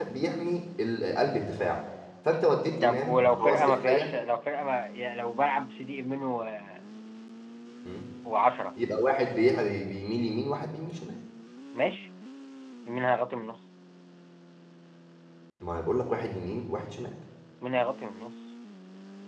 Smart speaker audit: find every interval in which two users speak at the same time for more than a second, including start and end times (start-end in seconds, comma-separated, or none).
2.8-4.1